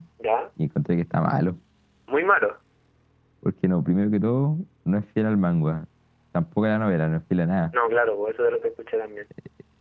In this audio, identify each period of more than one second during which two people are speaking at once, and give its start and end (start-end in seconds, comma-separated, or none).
none